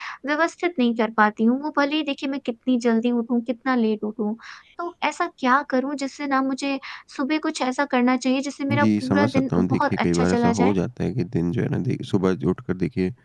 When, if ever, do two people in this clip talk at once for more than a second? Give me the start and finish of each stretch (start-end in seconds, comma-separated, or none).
8.7-10.7